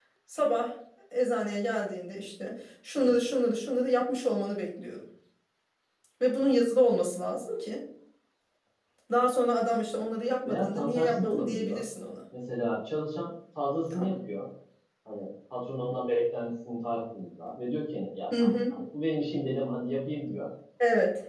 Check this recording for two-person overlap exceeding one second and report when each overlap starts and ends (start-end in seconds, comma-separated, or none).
10.4-11.8